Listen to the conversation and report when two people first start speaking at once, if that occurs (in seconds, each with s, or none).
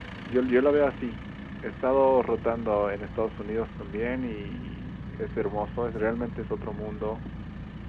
none